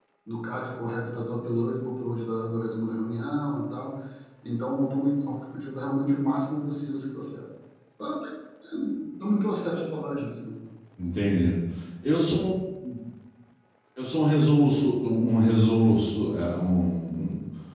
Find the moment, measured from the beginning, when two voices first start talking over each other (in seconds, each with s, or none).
none